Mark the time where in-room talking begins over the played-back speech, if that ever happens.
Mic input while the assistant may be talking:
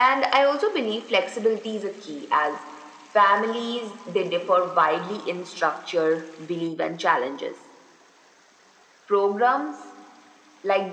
none

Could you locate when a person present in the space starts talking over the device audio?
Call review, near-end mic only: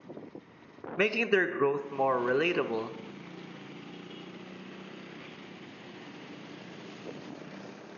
1.0 s

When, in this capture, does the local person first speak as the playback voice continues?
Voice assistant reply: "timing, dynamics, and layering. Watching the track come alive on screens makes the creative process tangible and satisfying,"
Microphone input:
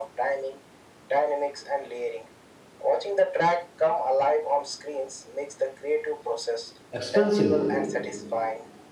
6.9 s

